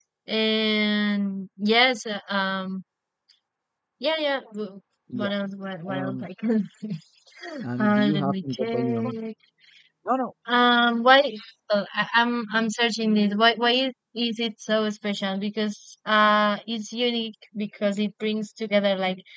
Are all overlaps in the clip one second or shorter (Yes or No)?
No